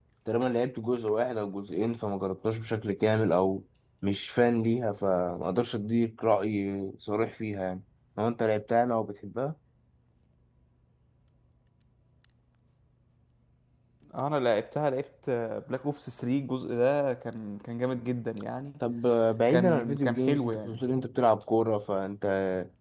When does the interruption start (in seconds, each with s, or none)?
19.5 s